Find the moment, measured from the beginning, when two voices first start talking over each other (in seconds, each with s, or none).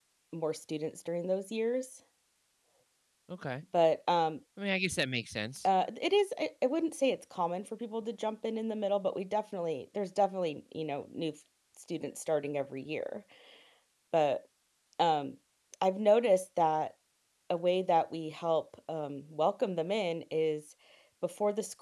none